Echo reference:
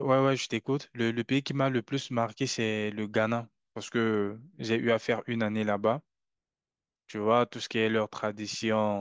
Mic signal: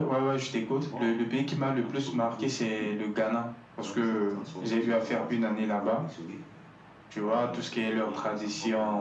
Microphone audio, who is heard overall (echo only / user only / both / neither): both